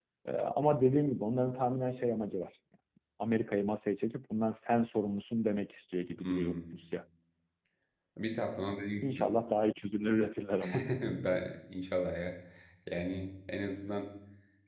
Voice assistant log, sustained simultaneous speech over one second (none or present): none